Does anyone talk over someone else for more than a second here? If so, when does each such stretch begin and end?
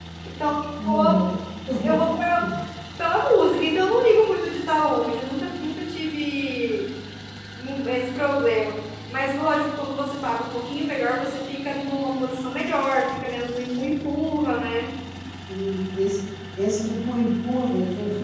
none

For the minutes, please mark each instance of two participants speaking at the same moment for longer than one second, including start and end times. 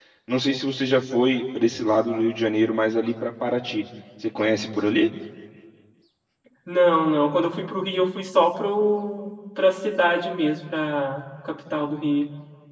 none

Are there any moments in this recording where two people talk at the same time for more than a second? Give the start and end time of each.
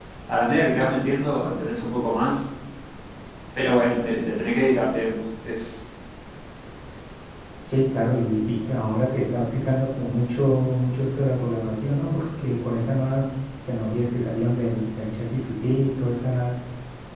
none

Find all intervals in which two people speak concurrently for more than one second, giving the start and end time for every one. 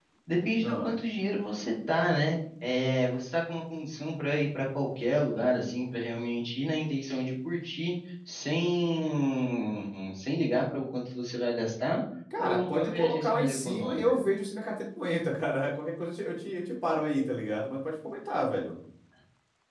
12.4-14.2

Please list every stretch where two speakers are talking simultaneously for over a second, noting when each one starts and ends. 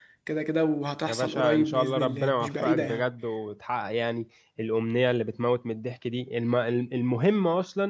1.1-3.1

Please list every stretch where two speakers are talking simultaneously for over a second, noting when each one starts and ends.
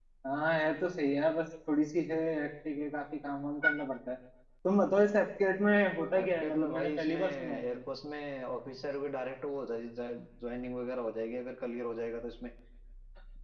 6.2-7.8

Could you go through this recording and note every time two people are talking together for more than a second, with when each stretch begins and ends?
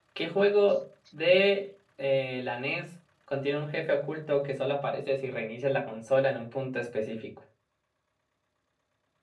none

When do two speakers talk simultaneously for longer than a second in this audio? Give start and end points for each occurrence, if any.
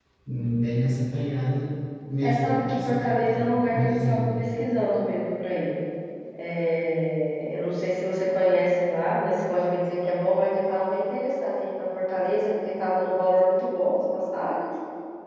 2.2-4.3

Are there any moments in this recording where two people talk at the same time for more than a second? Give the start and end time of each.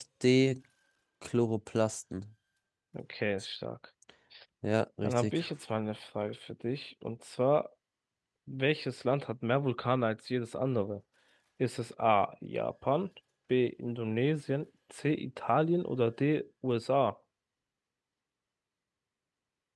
none

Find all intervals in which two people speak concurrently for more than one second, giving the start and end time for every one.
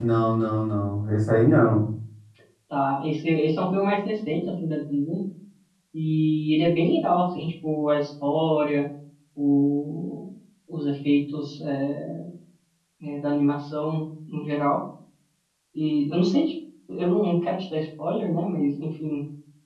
none

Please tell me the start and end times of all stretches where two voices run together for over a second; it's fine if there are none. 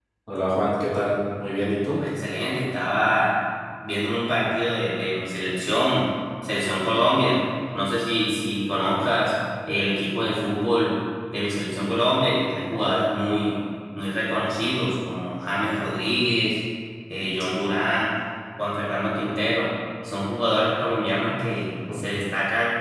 none

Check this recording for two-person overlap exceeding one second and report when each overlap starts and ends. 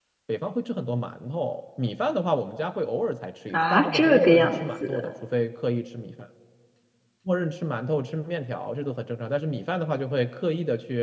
3.5-5.1

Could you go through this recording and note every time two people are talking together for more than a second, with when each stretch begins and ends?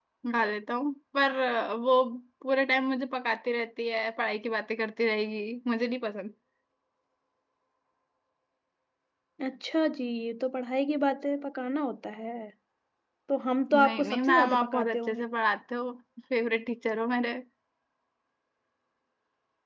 13.7-15.3

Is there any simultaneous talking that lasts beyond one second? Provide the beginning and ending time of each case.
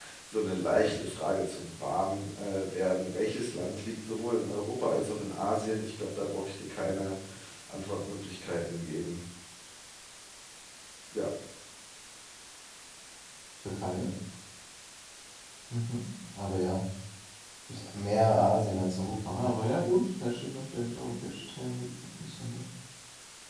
none

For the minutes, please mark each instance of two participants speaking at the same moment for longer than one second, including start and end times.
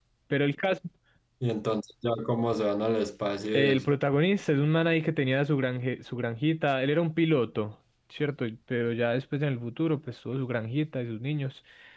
none

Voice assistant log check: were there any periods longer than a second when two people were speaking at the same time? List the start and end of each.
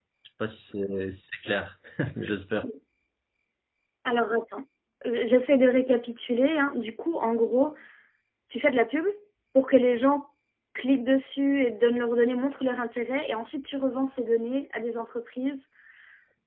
none

